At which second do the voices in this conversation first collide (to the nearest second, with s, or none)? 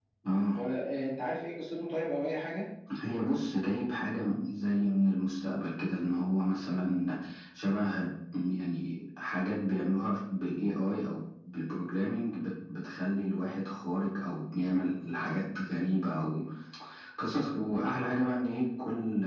none